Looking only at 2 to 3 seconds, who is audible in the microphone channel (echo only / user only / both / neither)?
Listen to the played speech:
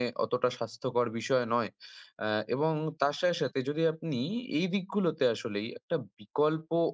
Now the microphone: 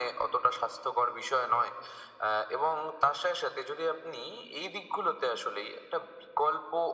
echo only